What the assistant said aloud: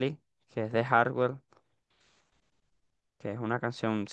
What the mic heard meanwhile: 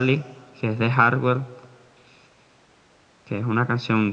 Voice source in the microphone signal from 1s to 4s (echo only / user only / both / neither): echo only